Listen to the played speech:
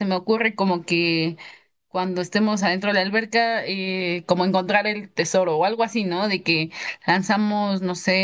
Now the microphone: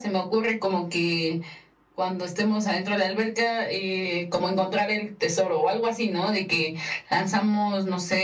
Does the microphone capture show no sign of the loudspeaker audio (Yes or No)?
No